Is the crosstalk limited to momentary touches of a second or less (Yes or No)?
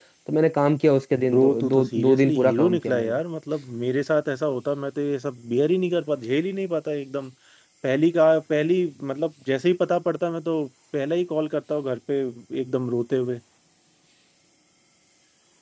No